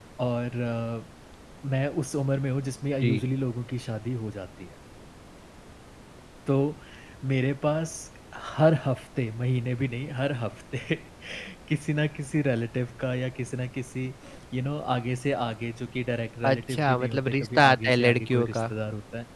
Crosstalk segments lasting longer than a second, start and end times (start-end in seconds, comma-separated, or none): 16.4-18.6